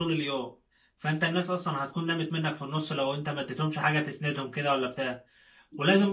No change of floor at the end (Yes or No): Yes